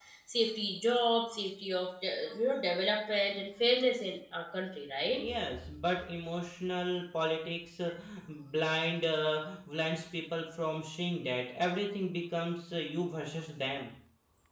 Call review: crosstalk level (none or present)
none